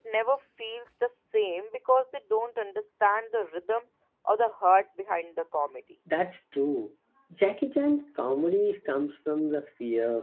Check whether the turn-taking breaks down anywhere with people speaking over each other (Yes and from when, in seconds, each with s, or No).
No